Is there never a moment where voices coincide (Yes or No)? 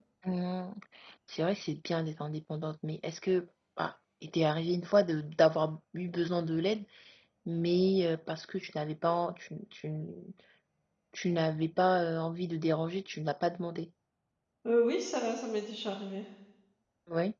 Yes